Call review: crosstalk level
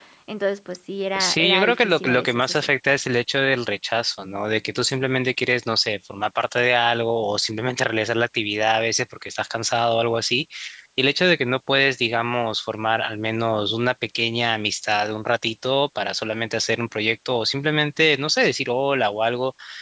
present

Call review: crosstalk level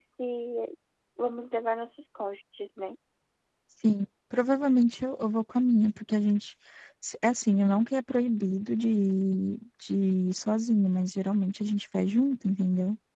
none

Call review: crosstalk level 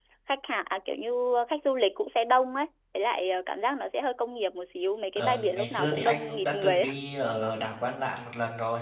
present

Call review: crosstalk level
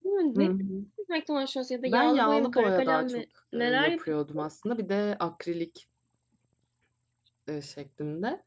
present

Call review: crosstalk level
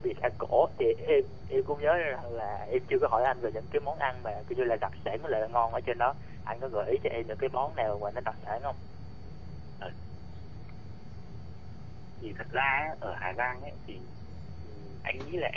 none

